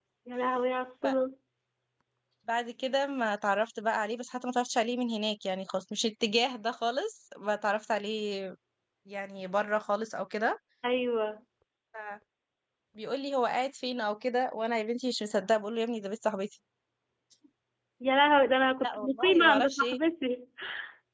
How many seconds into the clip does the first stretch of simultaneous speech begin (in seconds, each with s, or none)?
18.8 s